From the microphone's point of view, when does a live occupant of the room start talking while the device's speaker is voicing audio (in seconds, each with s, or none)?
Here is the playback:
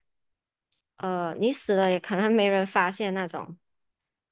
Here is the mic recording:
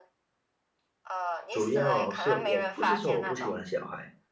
1.5 s